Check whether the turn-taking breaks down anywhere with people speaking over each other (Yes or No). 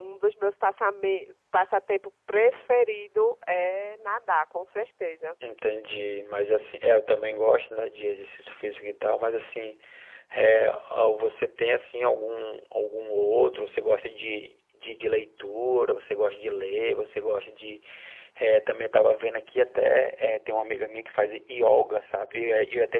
No